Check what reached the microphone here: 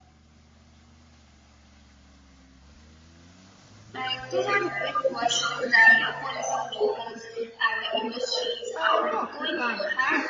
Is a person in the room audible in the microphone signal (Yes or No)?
Yes